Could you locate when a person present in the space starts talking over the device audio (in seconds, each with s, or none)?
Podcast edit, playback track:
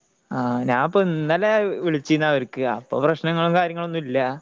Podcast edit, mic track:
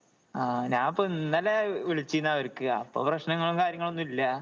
none